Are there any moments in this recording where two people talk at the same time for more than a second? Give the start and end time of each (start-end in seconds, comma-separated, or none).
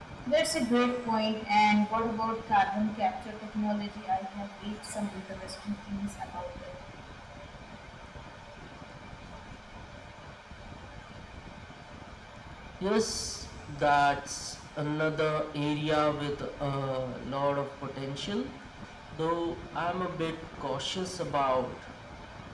none